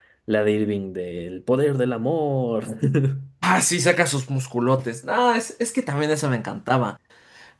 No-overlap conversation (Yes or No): Yes